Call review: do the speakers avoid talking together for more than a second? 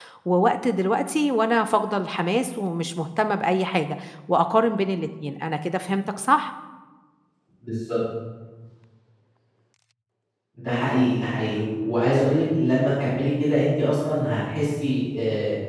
Yes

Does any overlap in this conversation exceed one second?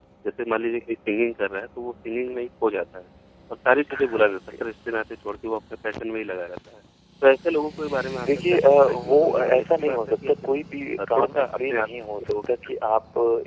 Yes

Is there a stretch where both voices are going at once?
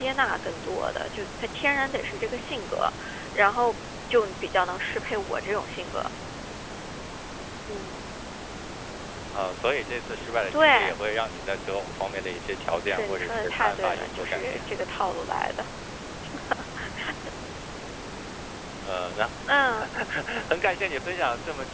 Yes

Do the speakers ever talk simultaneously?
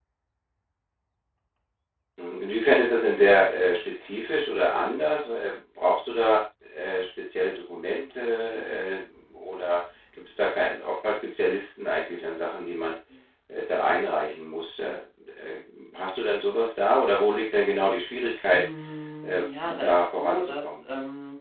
Yes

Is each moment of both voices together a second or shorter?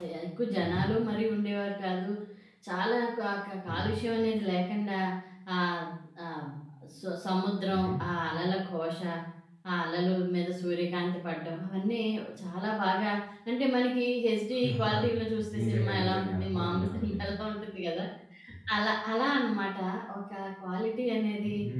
No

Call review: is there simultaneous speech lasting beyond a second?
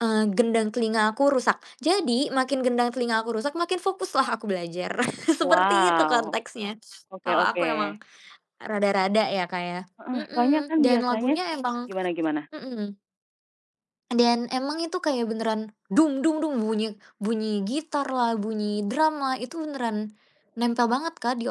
Yes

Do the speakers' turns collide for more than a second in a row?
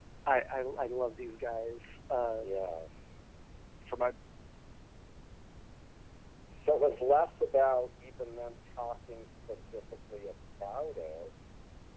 No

